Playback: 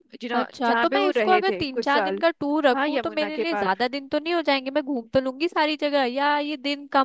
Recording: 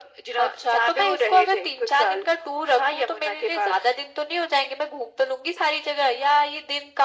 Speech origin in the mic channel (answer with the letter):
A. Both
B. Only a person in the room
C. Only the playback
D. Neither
C